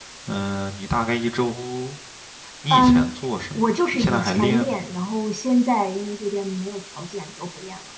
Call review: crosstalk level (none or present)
present